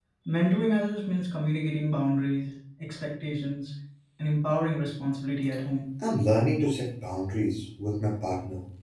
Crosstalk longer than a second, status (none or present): none